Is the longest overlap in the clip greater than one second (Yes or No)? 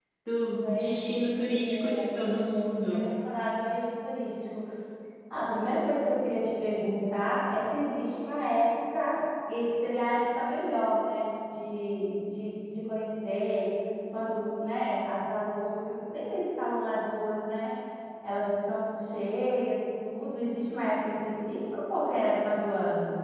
Yes